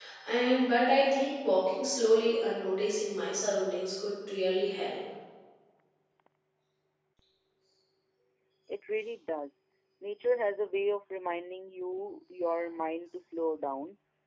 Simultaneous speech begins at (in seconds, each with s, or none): none